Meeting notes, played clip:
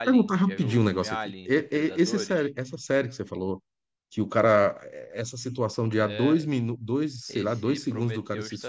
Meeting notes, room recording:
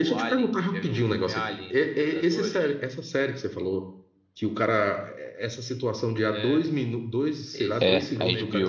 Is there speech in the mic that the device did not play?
Yes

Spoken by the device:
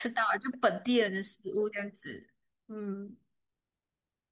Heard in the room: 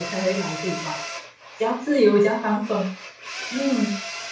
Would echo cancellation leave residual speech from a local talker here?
Yes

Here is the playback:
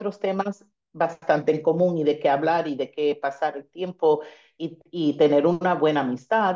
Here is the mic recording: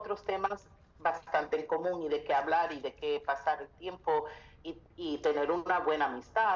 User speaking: No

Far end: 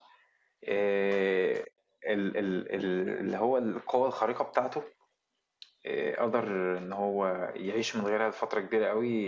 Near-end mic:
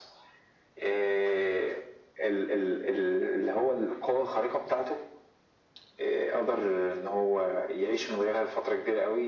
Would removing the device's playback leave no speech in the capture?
Yes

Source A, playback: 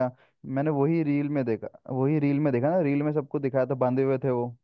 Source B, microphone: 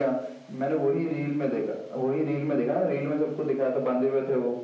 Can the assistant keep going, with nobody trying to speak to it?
Yes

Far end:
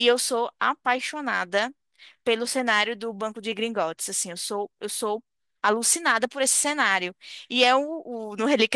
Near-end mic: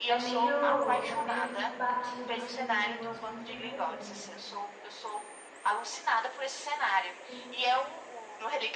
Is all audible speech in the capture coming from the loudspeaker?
No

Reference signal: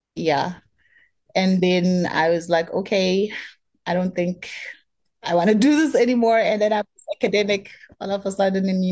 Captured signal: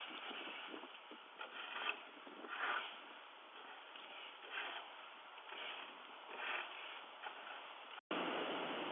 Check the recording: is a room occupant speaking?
No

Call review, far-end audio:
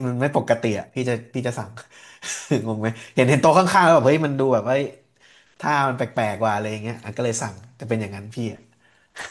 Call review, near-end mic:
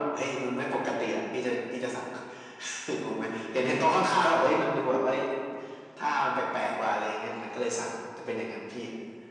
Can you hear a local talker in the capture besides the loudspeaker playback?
No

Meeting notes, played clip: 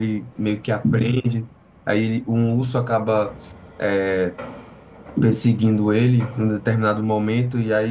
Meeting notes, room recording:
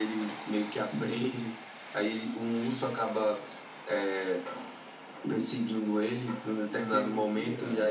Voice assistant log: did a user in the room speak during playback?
Yes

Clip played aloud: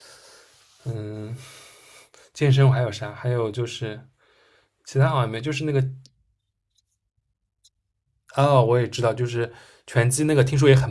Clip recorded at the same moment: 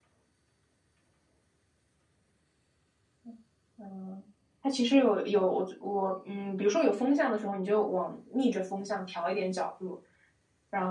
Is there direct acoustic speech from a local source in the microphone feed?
Yes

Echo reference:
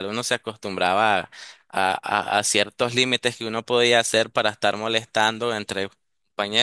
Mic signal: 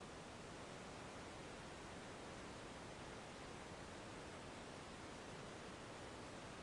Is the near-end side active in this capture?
No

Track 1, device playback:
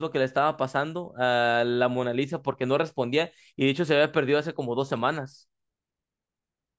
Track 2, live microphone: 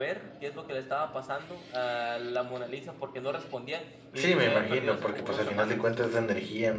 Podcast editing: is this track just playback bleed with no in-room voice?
No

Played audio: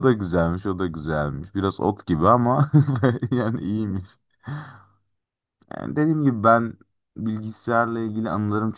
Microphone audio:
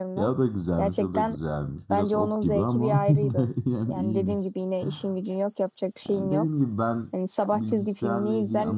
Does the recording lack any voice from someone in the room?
No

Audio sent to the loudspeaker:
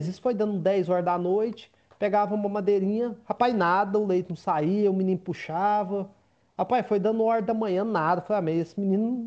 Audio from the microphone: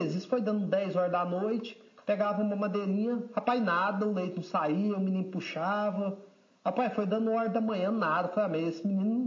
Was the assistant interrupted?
No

